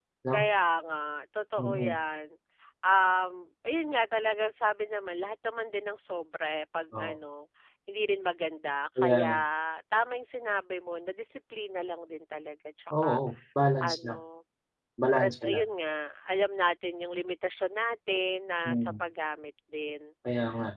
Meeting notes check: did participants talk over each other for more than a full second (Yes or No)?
No